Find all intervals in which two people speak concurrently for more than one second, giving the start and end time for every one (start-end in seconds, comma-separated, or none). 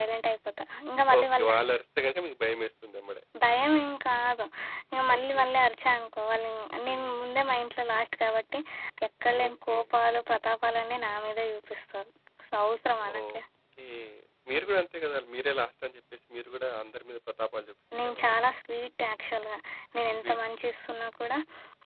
none